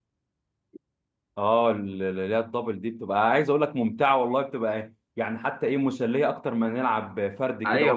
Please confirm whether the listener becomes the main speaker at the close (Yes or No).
Yes